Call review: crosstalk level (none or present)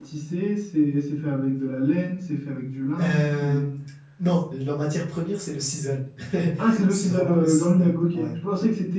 present